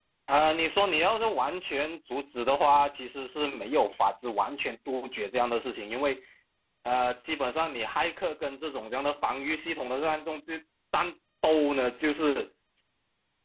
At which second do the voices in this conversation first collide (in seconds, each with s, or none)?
none